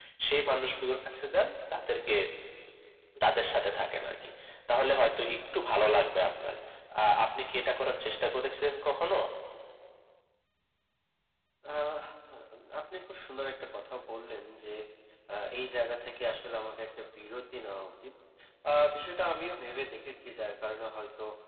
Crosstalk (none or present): none